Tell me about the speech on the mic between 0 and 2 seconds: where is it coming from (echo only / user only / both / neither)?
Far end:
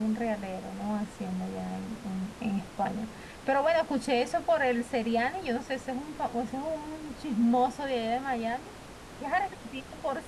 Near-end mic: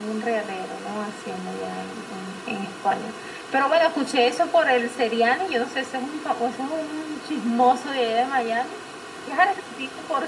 echo only